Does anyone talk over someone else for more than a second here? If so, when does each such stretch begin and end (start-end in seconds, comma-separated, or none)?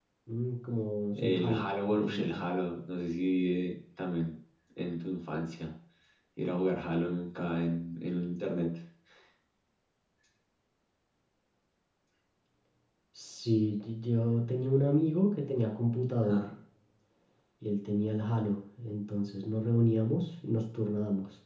1.1-2.4